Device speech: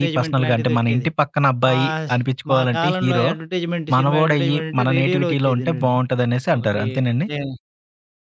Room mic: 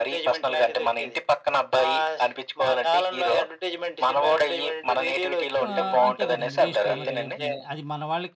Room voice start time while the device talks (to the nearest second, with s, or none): 6 s